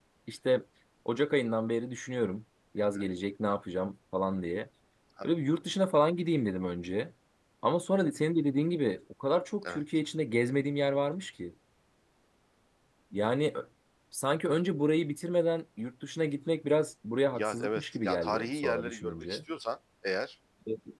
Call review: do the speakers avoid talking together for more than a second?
No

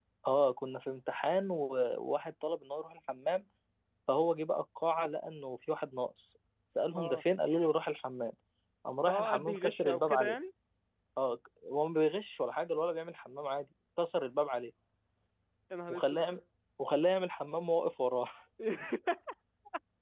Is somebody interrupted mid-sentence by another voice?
Yes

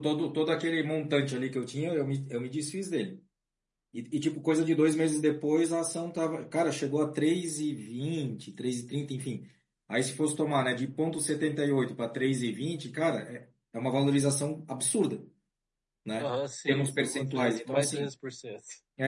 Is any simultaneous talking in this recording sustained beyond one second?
Yes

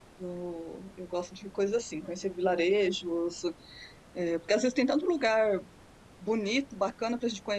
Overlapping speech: No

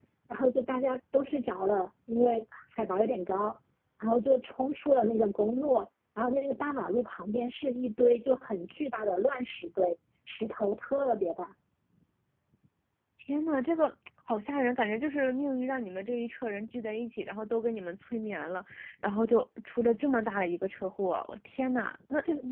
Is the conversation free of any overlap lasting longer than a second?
Yes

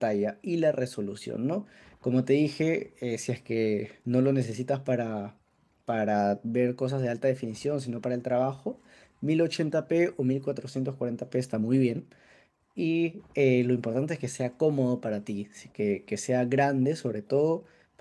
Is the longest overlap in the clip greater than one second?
No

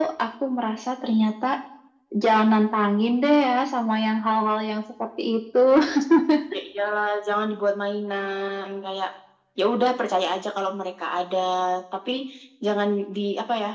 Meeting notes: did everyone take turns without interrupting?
Yes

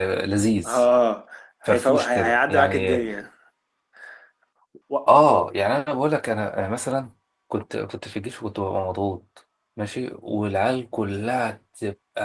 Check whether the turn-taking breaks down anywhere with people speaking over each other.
Yes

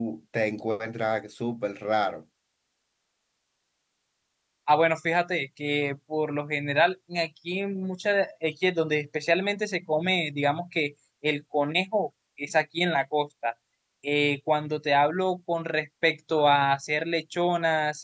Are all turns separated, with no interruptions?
Yes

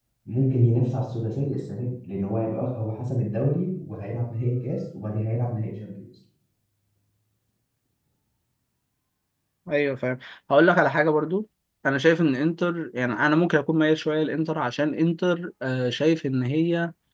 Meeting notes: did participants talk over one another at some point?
No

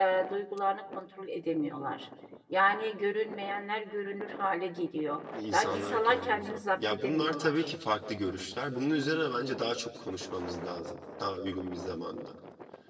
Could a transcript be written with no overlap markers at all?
No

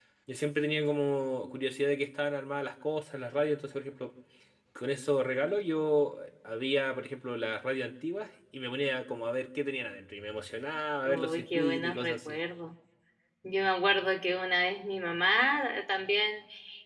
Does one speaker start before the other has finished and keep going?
Yes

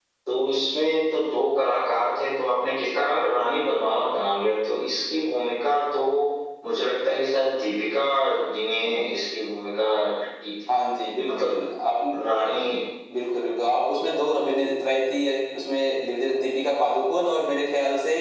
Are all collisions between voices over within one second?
Yes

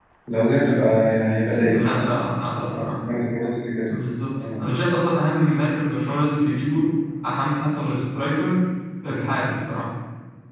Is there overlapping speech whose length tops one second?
No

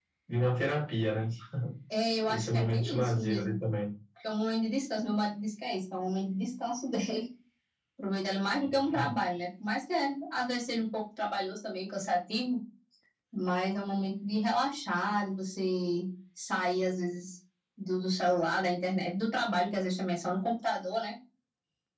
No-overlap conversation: No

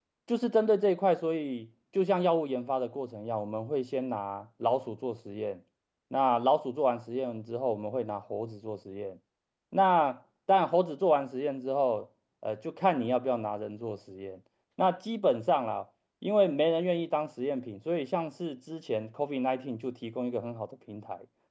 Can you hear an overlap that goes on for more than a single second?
No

